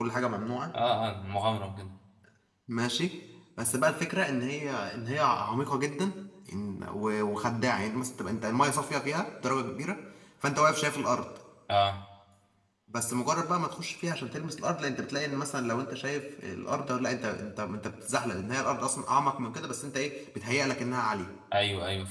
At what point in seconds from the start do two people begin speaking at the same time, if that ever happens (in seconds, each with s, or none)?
none